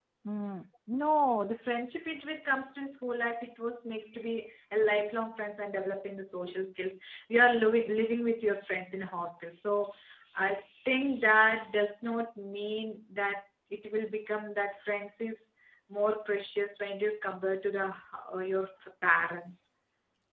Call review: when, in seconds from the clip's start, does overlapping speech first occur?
none

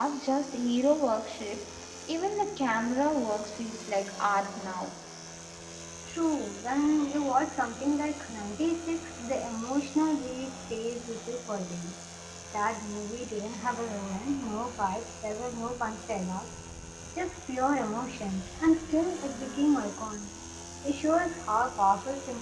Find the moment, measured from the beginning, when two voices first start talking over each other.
none

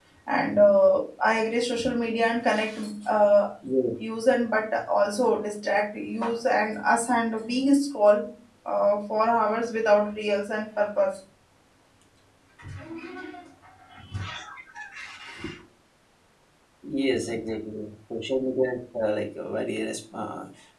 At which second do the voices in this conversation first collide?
none

